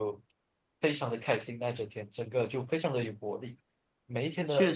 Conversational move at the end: listening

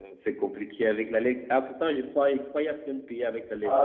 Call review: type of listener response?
taking over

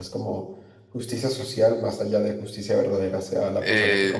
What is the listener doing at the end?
taking over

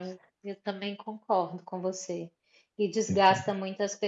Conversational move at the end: listening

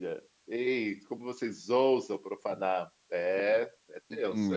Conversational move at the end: taking over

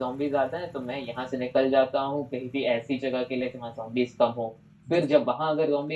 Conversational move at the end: listening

